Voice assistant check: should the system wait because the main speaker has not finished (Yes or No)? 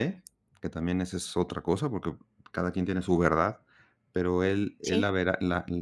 Yes